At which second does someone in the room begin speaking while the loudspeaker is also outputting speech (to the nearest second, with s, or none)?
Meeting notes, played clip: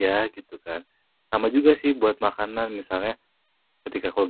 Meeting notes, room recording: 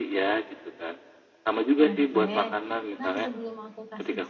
2 s